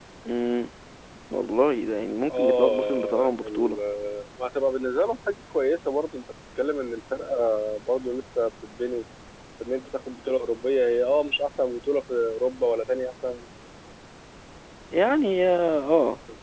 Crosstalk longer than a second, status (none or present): present